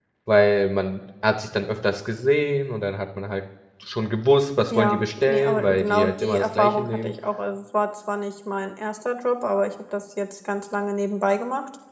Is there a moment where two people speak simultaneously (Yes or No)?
Yes